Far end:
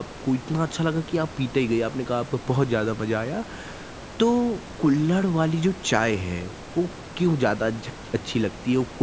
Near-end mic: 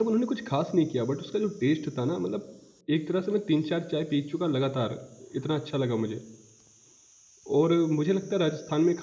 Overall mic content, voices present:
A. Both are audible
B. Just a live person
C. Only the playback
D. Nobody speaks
B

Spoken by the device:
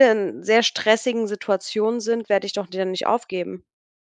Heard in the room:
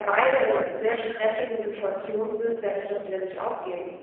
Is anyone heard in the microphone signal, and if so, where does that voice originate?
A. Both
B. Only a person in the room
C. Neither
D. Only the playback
A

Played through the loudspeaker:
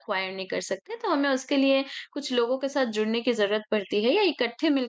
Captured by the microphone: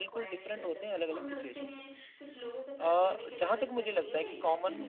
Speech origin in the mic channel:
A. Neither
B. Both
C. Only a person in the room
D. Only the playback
B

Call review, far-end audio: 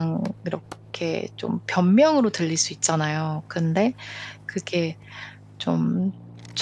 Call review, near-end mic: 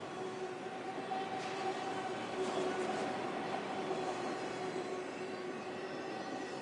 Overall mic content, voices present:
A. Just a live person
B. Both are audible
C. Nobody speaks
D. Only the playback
C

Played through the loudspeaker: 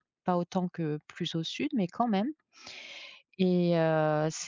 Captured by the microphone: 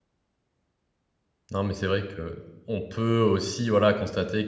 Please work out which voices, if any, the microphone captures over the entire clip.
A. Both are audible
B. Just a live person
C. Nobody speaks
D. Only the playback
B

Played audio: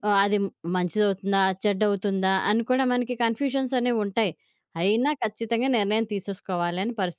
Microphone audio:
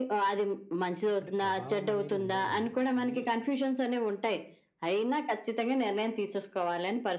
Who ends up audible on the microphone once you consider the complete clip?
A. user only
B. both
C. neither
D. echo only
B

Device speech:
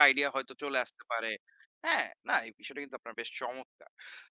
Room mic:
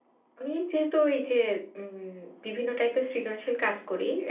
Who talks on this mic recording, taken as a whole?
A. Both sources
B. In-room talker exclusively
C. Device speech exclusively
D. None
B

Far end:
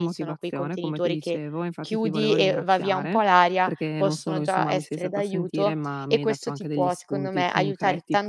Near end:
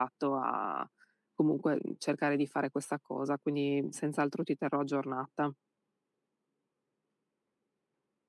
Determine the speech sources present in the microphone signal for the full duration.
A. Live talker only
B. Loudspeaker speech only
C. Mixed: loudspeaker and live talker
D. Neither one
A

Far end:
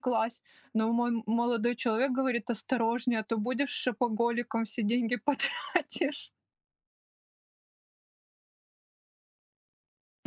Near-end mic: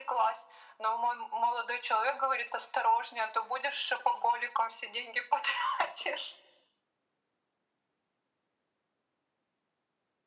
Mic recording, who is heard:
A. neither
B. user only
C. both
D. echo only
D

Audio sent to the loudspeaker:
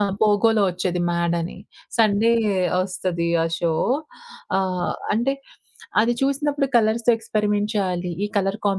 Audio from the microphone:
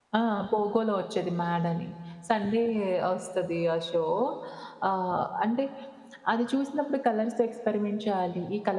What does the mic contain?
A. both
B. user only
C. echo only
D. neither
C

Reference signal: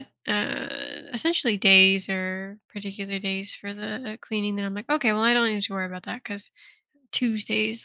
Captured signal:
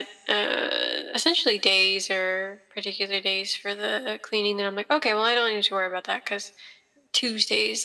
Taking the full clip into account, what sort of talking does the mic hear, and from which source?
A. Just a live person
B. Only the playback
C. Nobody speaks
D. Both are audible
B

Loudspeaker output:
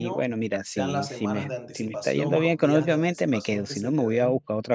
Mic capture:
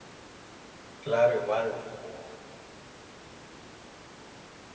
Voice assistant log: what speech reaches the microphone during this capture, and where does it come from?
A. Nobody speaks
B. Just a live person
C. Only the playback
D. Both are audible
B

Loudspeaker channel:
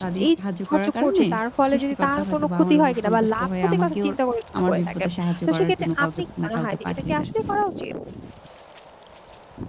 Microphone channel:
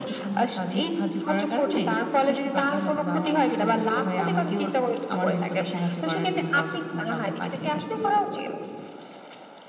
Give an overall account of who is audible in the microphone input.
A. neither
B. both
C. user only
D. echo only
D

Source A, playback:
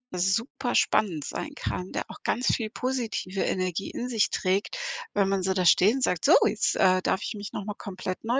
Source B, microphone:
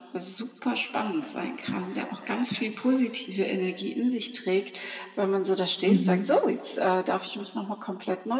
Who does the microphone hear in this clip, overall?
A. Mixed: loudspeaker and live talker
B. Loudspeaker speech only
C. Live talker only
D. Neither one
A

